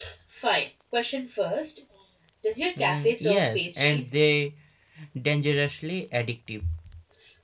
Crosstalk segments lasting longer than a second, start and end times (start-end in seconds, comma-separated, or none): 2.8-4.2